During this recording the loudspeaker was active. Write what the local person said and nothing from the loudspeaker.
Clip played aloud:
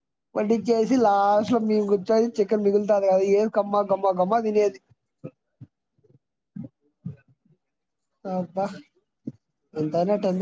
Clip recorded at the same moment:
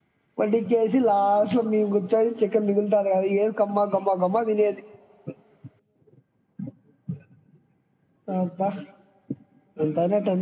none

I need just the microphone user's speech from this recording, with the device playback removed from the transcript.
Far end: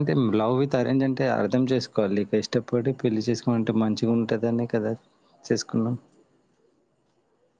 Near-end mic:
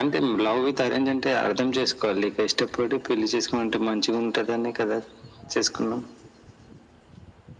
none

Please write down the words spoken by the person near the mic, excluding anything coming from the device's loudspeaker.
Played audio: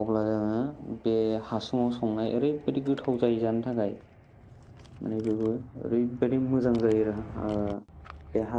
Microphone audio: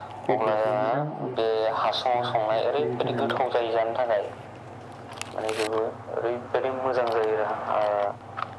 बेदर खौ मोजां एवनोसै जों मस्ला मस्लि होनानै

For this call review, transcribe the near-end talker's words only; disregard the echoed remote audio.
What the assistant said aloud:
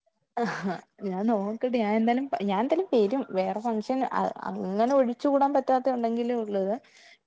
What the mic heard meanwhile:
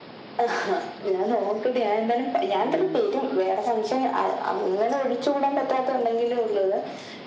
ഉം

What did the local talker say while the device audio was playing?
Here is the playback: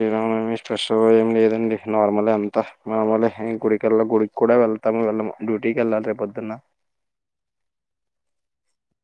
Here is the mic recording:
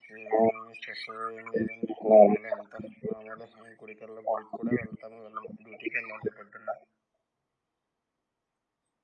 none

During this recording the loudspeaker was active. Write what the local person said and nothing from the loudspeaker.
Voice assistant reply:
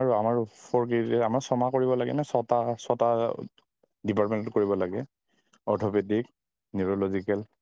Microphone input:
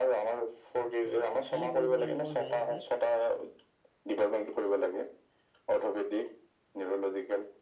হয় কি কৰিব লাগিব যায় তাতে

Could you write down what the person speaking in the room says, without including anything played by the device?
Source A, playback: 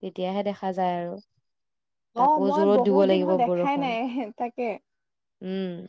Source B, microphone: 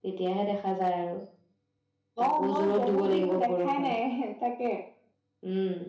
none

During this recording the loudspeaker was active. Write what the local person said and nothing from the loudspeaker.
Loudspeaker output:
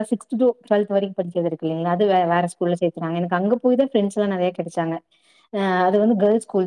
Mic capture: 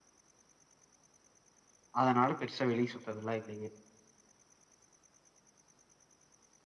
அதனால பெருசா வெள சுதல்லா இல்லையே

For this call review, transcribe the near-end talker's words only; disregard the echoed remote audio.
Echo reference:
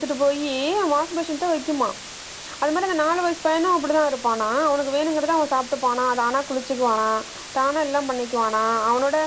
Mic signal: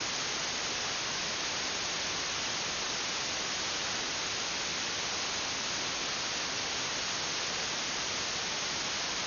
none

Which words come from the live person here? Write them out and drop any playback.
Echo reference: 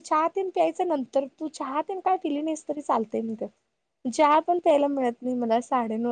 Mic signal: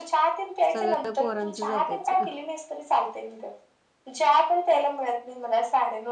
सगळं पोरांचंच ऐकायचं

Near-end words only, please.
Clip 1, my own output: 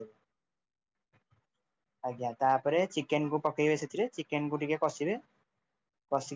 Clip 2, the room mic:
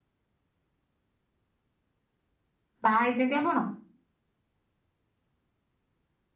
ବାହା ହେଇଛନ୍ତି ଆପଣ?

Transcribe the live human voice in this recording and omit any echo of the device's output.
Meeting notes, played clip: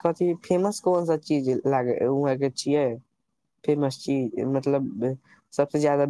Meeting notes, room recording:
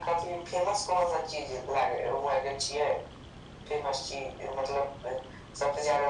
none

